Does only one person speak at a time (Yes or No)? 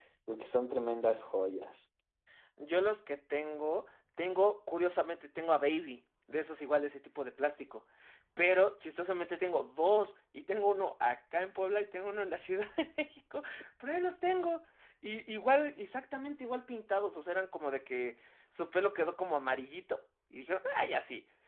Yes